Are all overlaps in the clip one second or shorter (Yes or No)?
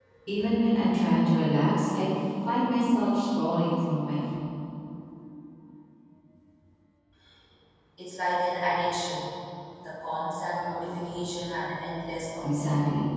Yes